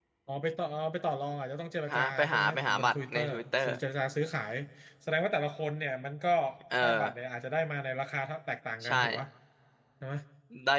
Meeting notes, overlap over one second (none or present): present